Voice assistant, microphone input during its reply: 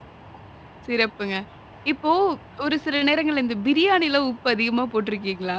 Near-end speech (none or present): present